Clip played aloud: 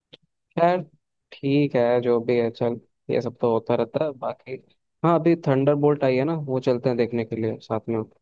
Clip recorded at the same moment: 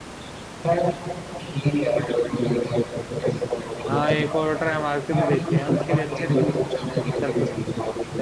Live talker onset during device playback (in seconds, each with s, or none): 3.9 s